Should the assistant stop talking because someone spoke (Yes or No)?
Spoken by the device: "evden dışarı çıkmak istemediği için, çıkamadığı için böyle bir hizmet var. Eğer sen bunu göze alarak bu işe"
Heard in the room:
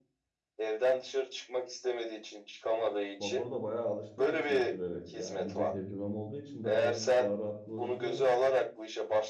Yes